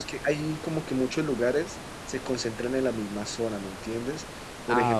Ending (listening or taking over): listening